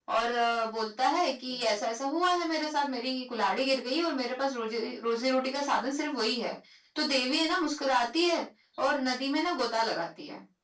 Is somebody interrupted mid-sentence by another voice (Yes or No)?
No